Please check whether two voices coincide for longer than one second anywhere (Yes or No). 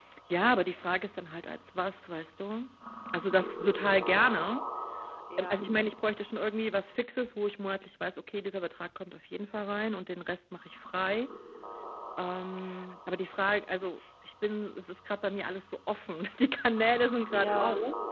No